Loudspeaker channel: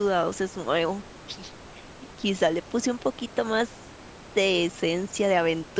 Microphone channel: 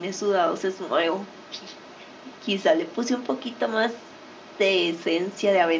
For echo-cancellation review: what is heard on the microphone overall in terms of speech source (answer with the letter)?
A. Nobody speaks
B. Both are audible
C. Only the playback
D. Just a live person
C